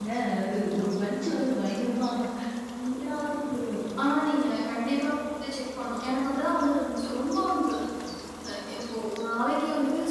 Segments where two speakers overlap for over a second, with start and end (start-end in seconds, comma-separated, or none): none